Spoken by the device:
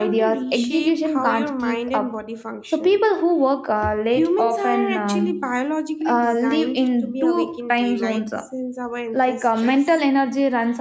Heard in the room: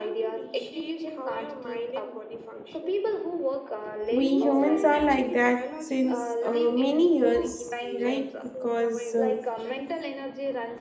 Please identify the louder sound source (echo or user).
user